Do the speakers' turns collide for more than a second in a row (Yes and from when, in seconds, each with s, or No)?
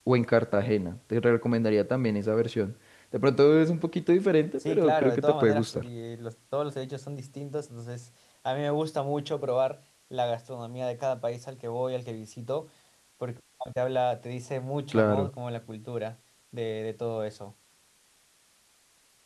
Yes, from 4.6 s